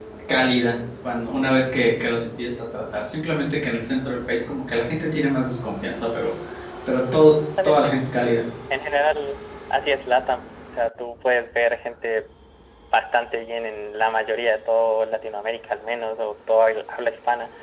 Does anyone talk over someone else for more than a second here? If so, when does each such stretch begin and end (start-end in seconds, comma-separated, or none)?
none